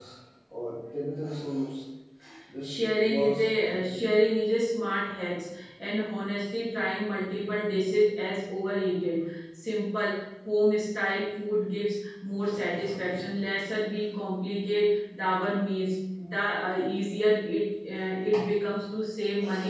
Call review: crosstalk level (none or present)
present